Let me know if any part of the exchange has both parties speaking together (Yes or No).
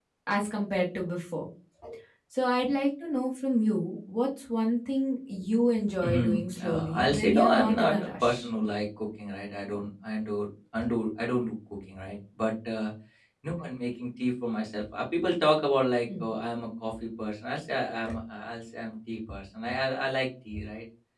Yes